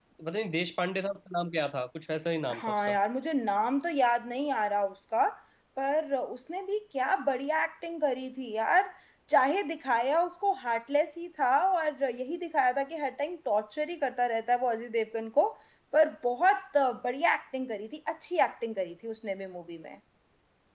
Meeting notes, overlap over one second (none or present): none